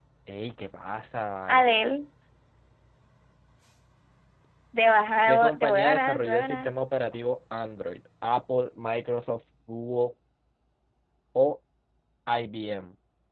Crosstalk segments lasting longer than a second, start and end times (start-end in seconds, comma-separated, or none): 5.3-6.7